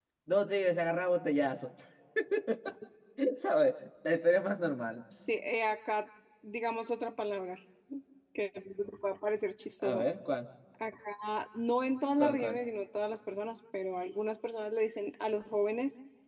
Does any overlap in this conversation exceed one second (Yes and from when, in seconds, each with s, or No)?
No